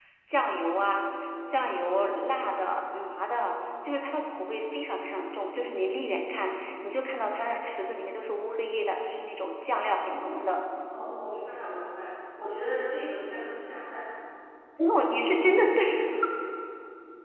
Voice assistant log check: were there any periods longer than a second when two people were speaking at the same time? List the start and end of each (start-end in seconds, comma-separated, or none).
none